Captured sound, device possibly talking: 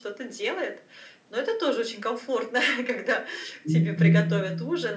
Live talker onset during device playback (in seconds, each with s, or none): 3.6 s